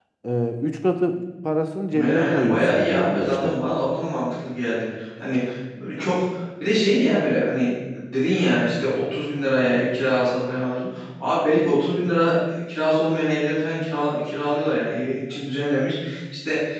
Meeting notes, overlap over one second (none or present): present